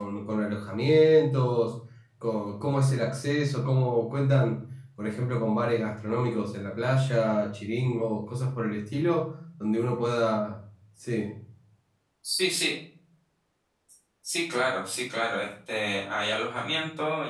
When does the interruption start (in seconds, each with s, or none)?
none